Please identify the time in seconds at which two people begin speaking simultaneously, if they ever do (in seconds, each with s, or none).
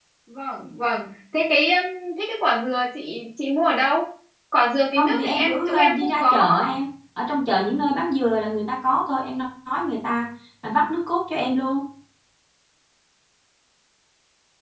5.0 s